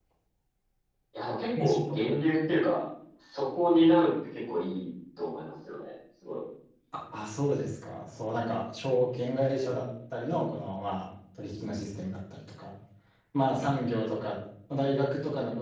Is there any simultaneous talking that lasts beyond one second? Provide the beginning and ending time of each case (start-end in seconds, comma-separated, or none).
none